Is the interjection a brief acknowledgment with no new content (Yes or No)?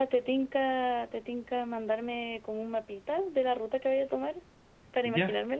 No